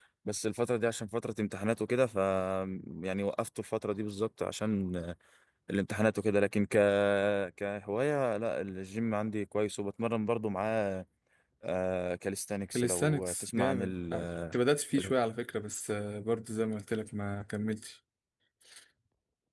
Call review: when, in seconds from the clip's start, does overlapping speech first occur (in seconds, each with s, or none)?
12.7 s